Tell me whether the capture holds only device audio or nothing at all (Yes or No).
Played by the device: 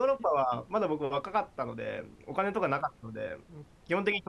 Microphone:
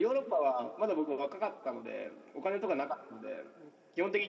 Yes